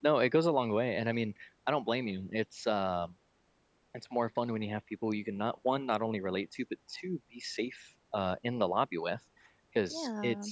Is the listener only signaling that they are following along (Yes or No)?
Yes